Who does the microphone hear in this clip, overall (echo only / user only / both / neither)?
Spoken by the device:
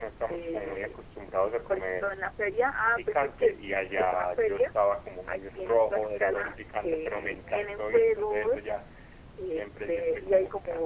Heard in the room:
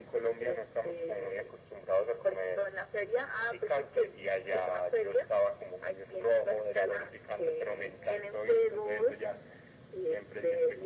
echo only